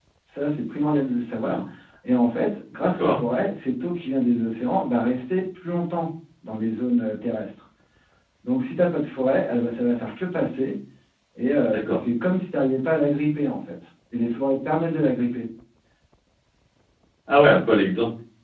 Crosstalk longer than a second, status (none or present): none